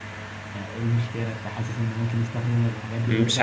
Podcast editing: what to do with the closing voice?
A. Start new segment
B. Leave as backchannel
A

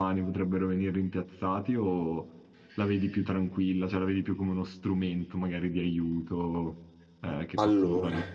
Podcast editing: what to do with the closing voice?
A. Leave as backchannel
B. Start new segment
B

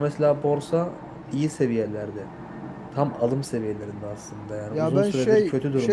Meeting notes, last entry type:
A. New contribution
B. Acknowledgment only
A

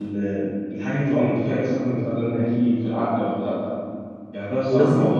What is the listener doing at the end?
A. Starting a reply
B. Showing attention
B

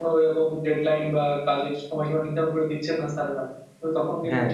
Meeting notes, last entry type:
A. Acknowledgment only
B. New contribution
A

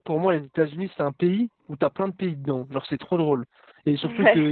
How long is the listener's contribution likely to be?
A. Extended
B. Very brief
B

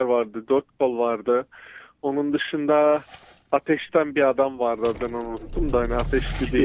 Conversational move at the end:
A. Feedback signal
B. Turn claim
B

